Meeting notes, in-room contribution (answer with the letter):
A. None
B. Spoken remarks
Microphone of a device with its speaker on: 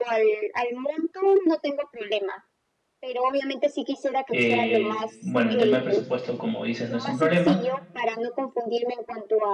B